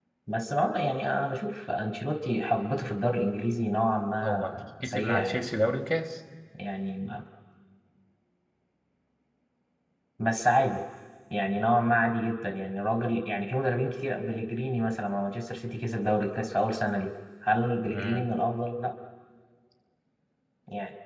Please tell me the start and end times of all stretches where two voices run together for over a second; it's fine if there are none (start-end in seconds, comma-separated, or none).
4.2-5.4